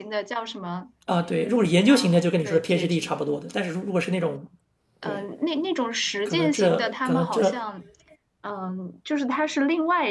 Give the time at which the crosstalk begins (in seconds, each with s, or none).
1.9 s